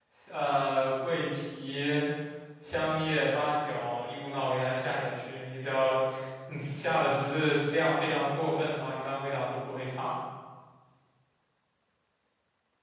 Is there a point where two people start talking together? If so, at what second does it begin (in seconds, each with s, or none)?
none